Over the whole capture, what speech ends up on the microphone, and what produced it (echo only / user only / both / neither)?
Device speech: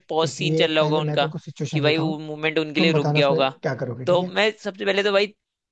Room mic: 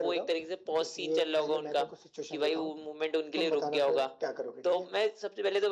echo only